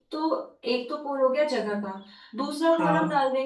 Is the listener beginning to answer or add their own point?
No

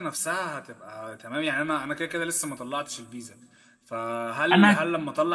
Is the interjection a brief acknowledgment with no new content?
Yes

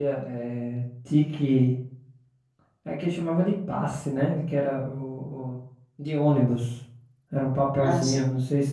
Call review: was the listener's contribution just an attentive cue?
Yes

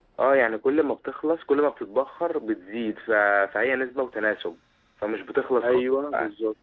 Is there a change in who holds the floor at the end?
Yes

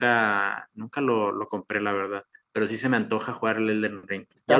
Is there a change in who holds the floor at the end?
Yes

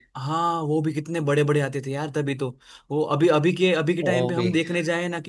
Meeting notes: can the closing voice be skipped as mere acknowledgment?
Yes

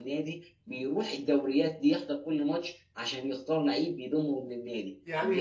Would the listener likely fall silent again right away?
No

